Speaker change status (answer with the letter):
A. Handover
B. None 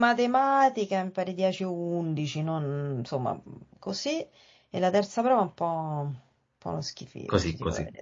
A